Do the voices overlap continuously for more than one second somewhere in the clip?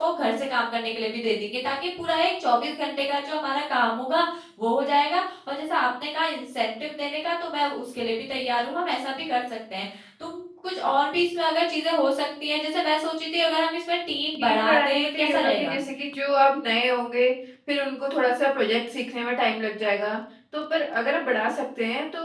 Yes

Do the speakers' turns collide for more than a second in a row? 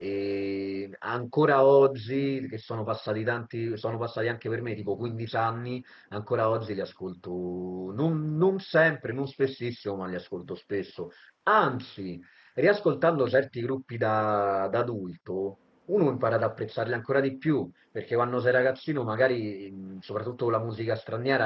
No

